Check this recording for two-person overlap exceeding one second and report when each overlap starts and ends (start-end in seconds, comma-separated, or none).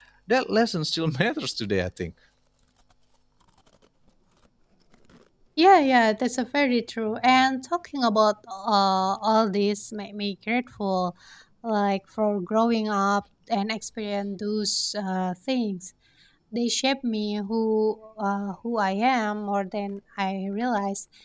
none